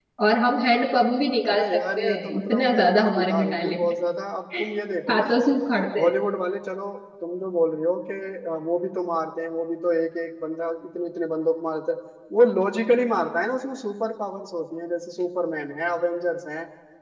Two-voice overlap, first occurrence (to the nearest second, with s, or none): 2 s